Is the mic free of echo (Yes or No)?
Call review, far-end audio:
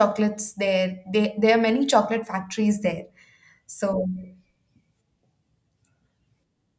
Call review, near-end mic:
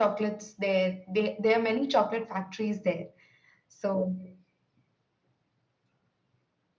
No